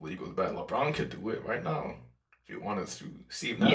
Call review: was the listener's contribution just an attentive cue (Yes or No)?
No